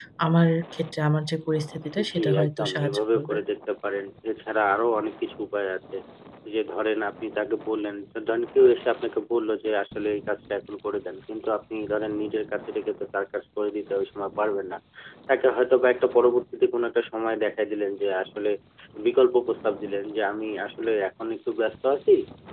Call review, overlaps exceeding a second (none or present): present